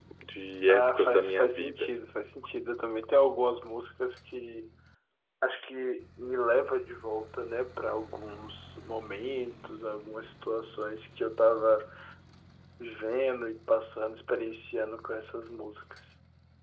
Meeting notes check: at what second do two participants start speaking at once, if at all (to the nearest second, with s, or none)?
1 s